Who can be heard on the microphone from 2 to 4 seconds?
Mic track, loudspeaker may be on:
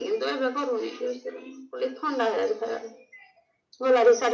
echo only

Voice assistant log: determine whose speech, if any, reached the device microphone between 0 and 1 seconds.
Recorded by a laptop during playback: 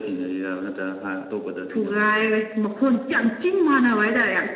echo only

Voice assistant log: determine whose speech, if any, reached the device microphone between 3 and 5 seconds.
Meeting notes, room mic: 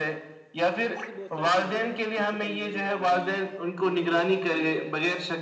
both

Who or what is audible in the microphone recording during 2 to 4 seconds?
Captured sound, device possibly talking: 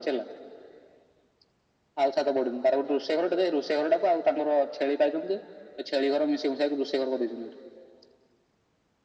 echo only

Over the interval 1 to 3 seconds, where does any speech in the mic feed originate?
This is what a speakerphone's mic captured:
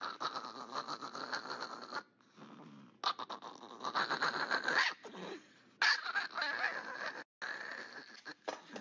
neither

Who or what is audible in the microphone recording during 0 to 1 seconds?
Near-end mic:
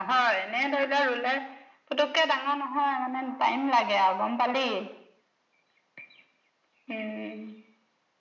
echo only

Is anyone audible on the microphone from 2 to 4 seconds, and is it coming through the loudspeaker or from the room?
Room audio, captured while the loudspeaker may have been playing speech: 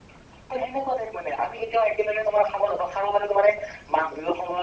echo only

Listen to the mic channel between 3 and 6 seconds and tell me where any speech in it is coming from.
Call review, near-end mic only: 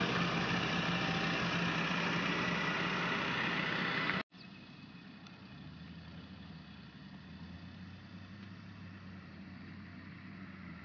neither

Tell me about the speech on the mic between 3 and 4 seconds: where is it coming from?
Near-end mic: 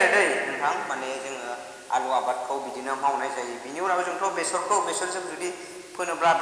echo only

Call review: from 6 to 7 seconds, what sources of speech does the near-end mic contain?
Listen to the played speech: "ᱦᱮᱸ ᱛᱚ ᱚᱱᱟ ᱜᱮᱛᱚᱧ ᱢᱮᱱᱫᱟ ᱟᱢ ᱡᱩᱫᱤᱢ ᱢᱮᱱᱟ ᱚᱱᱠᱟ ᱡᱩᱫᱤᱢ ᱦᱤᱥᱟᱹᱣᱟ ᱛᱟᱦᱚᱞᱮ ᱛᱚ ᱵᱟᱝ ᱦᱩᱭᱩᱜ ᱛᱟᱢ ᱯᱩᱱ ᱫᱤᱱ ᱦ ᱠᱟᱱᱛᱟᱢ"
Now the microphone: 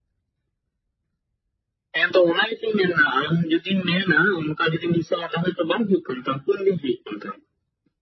echo only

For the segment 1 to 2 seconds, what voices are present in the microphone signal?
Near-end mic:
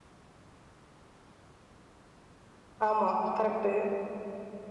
neither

